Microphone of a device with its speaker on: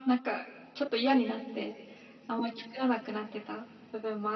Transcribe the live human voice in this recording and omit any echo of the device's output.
none

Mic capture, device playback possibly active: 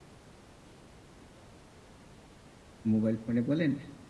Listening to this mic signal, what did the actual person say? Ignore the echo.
মোবাইল ফোনে বলেন

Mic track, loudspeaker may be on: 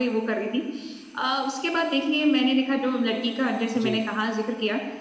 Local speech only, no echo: जी, जी।

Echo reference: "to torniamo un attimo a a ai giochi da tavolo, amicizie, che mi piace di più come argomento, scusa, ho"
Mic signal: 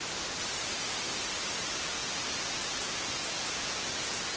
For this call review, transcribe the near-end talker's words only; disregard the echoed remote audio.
none

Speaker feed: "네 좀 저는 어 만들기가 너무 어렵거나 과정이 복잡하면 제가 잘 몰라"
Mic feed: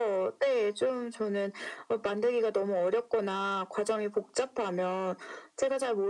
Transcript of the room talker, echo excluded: none

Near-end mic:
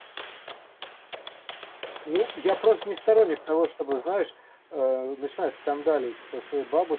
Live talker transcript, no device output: none

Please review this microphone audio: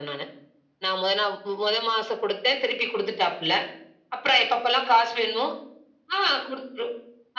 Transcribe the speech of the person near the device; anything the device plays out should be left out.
none

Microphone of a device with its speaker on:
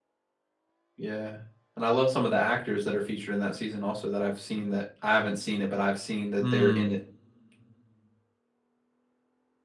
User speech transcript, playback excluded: Mm.

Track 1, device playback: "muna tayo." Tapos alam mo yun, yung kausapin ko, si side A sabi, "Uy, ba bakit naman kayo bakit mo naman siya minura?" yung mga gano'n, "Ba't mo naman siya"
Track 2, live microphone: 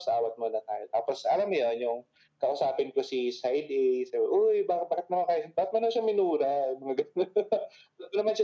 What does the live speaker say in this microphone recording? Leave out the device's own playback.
none

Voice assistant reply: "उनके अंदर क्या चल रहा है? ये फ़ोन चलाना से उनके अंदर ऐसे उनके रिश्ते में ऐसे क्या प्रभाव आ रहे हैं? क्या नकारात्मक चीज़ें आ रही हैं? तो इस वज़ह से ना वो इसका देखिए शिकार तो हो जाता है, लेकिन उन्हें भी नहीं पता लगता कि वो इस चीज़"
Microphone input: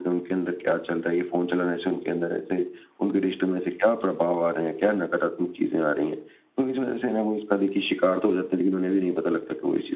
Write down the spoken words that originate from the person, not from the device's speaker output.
none

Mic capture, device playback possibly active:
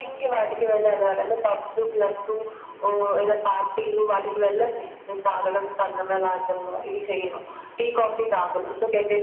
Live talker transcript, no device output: none

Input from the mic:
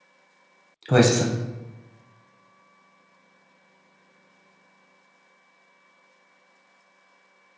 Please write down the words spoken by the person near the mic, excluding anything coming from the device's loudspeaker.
Ouais, c'est ça.

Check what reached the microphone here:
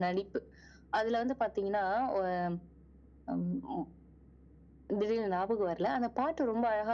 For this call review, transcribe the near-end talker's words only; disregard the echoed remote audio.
none

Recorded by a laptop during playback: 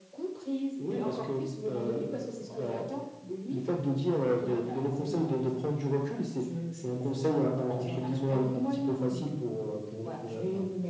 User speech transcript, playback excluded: none

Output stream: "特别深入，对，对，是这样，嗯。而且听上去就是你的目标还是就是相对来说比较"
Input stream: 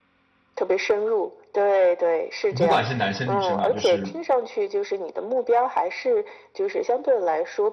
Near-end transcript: 不管是男生女生啊，就是，

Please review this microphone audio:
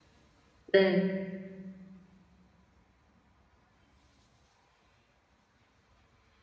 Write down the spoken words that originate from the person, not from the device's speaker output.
네.

